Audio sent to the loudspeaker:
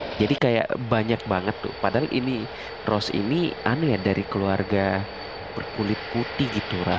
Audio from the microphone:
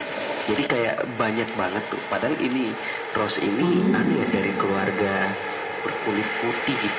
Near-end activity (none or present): present